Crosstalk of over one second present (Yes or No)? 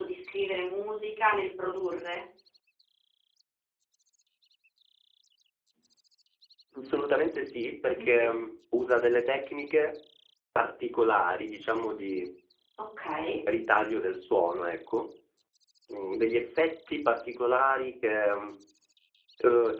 No